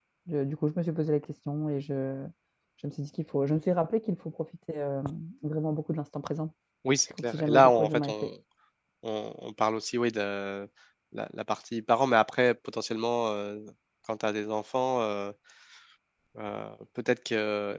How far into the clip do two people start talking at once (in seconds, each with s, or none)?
7.1 s